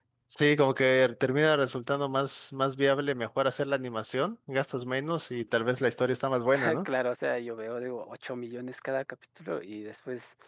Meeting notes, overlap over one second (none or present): none